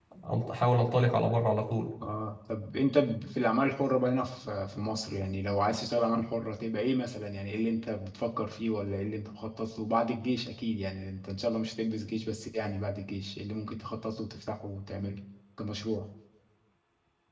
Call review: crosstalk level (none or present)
none